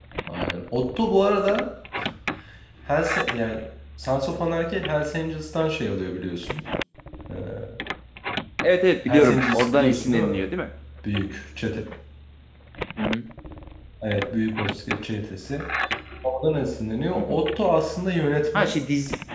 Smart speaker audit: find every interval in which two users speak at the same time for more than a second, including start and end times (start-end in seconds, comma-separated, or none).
9.1-10.4